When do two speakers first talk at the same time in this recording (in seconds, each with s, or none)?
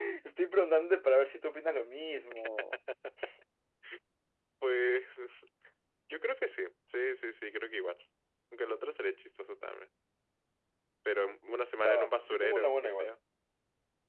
11.8 s